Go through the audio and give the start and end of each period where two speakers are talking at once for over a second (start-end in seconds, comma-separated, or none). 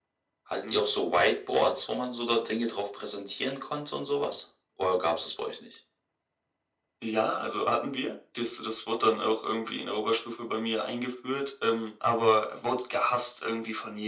none